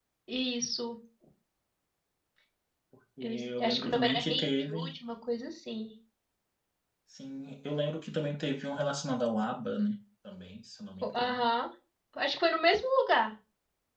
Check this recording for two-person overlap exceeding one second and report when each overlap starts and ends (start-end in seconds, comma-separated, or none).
3.2-5.0